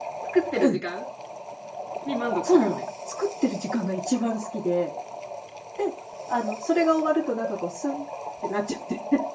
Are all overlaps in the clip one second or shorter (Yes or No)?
Yes